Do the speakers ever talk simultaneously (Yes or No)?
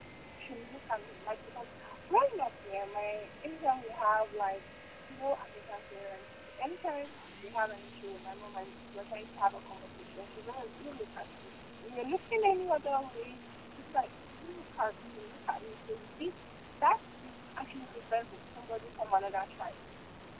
No